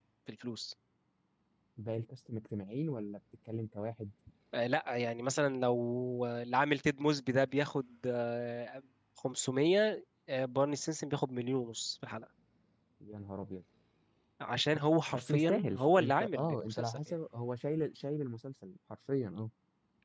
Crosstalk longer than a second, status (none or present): present